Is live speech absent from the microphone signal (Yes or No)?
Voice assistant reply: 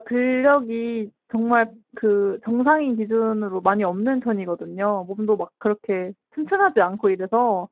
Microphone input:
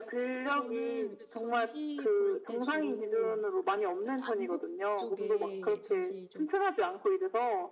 No